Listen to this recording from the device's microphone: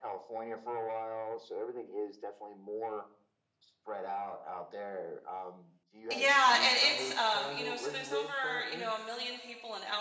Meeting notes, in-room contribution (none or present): present